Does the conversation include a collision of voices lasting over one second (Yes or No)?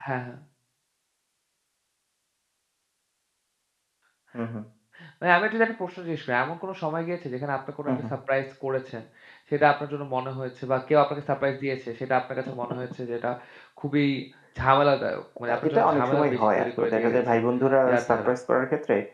Yes